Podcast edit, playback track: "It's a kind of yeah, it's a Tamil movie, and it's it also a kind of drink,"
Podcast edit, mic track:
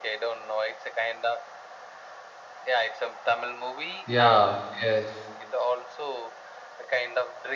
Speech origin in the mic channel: both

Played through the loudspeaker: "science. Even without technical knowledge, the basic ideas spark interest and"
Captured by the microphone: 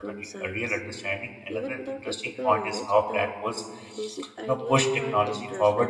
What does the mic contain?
both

